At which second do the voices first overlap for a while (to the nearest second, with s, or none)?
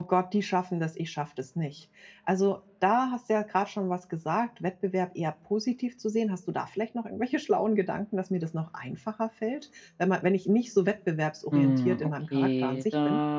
12 s